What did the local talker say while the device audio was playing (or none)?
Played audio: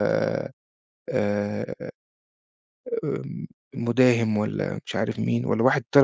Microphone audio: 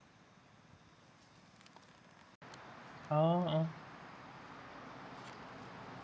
آه، آه،